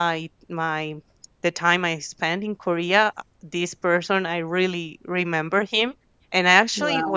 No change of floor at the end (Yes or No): Yes